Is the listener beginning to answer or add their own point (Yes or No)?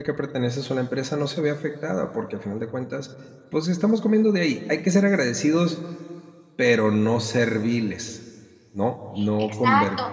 Yes